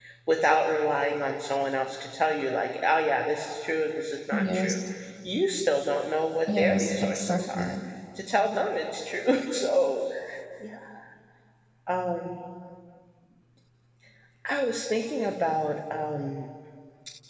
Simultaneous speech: Yes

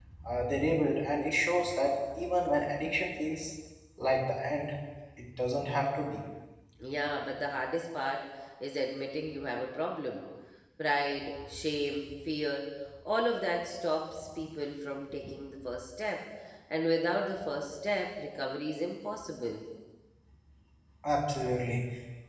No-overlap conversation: Yes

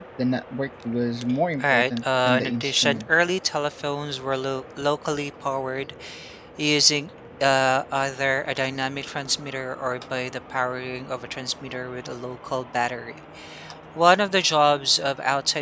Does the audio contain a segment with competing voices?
Yes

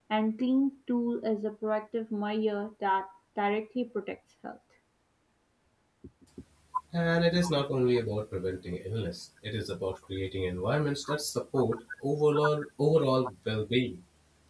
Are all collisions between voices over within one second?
Yes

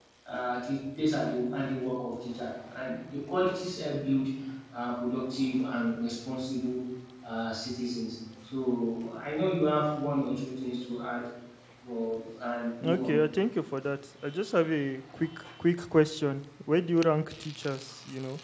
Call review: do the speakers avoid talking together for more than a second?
Yes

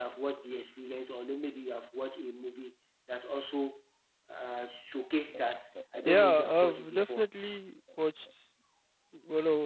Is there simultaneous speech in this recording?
Yes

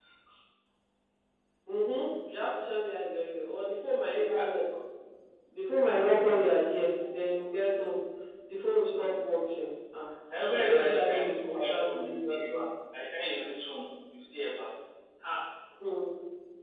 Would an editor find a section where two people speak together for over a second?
Yes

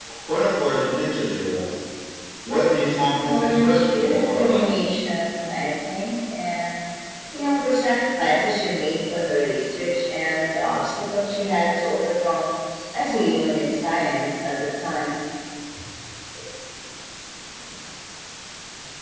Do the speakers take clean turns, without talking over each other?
No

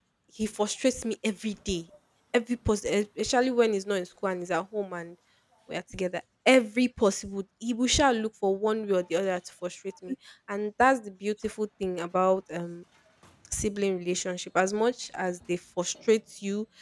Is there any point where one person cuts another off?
No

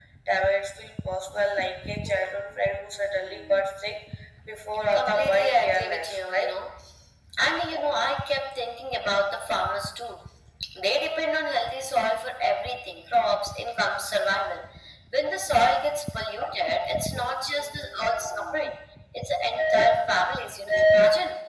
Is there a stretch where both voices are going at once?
Yes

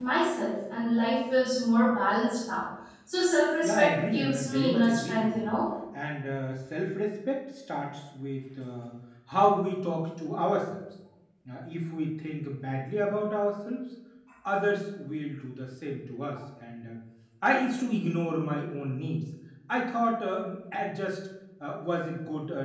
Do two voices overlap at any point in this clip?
Yes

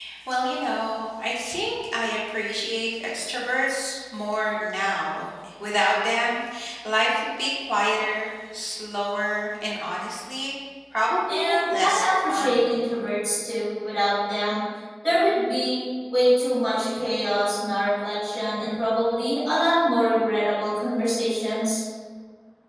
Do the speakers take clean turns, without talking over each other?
No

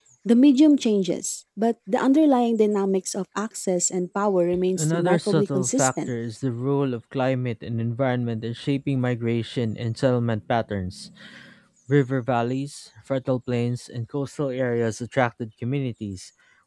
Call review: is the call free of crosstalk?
No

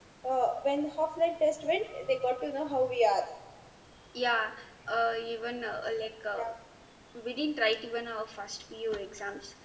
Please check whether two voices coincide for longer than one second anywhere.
No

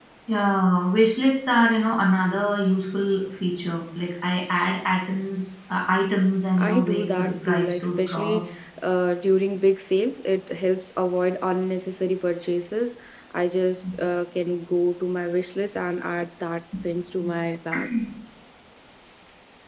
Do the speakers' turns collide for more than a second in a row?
Yes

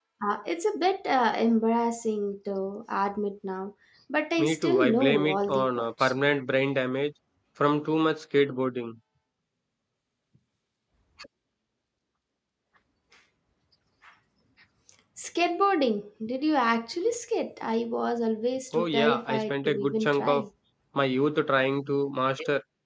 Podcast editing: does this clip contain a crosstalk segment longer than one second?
Yes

